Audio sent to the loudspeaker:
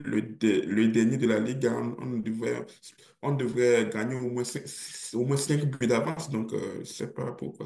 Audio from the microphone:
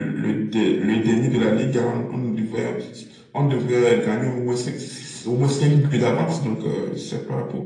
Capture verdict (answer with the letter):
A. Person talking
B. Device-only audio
B